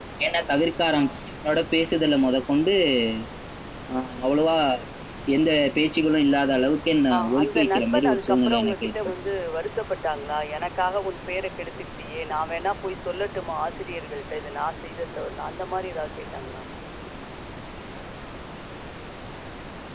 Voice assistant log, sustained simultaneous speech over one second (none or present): present